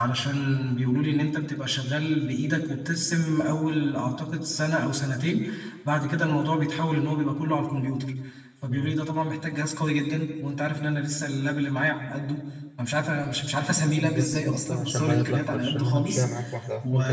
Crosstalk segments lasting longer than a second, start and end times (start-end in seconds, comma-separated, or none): 14.0-16.2